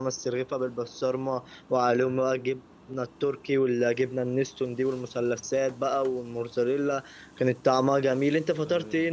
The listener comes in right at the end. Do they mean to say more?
Yes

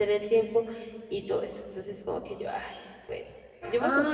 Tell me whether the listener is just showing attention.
No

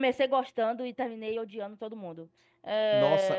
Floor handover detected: Yes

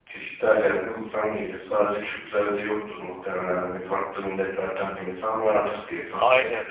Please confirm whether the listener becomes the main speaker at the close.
Yes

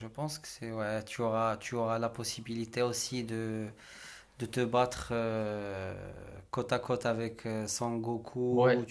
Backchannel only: No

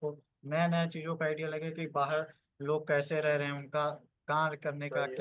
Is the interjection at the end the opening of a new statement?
No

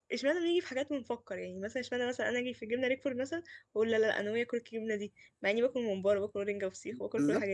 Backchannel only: No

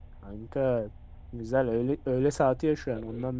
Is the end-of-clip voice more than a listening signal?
Yes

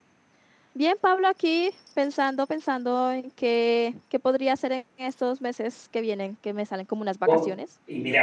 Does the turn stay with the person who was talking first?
No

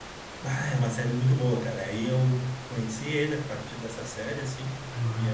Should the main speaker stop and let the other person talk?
No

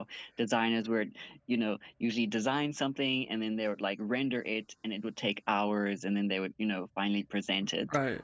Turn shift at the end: Yes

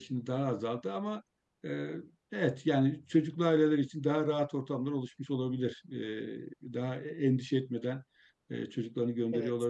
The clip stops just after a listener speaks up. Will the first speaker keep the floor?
Yes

